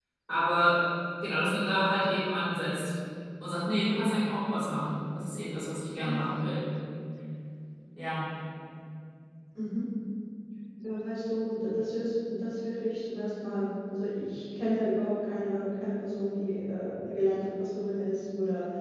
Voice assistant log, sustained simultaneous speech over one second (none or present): none